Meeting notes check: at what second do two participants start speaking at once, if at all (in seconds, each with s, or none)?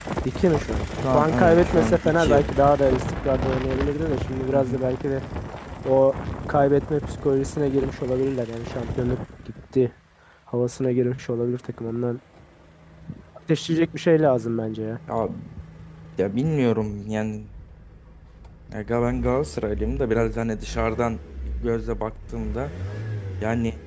1.1 s